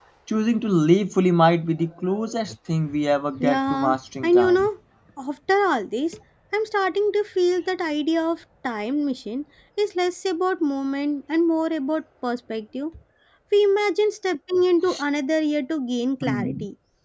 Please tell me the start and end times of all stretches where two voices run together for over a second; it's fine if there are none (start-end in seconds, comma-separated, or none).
3.4-4.7